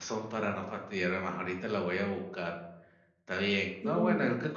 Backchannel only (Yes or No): Yes